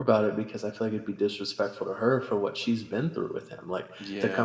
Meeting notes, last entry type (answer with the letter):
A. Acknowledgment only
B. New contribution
A